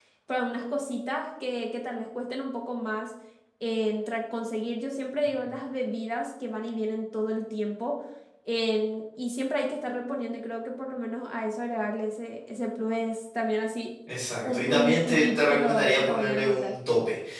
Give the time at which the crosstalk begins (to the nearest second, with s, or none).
14 s